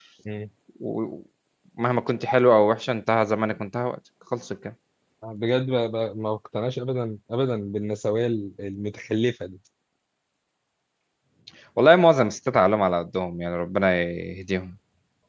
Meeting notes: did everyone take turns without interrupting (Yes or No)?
Yes